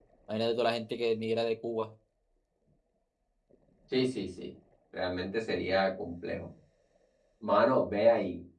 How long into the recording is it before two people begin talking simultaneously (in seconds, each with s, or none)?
none